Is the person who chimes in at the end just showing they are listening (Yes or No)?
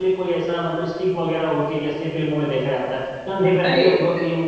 Yes